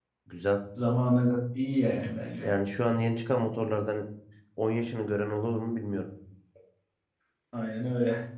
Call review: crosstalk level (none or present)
none